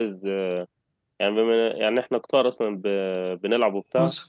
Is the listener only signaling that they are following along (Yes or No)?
Yes